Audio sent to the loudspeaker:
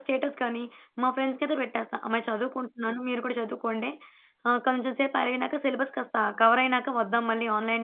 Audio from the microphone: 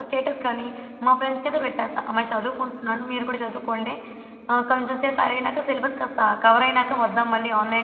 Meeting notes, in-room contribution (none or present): none